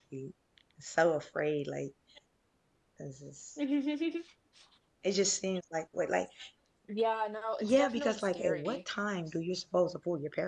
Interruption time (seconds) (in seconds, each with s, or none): 7.6 s